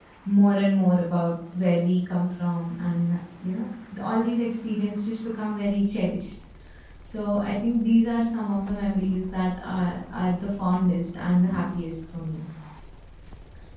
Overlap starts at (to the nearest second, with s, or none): none